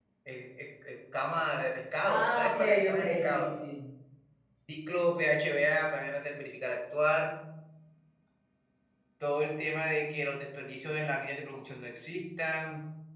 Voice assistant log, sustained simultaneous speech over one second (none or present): present